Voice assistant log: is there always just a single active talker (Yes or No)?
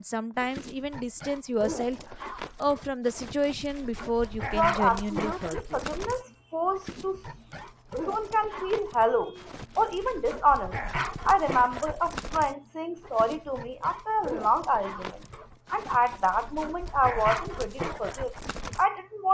No